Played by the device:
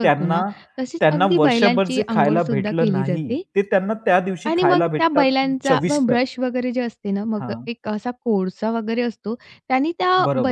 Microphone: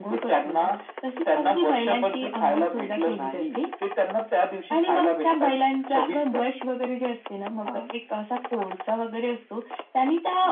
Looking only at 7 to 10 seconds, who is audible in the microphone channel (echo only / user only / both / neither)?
echo only